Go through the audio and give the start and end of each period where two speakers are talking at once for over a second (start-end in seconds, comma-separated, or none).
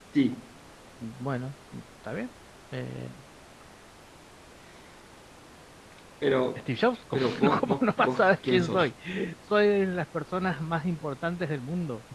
7.1-8.9